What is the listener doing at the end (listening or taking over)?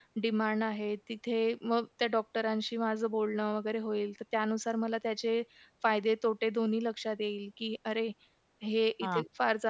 listening